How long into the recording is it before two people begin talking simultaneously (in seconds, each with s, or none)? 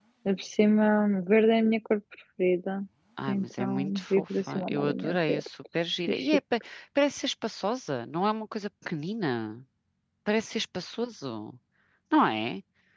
3.3 s